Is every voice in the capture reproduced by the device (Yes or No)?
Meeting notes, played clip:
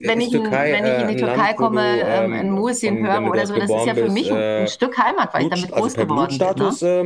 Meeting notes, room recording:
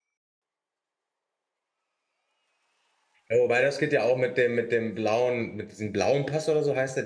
No